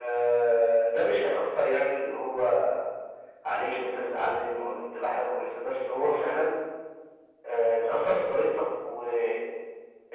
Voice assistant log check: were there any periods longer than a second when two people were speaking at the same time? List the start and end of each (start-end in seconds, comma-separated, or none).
none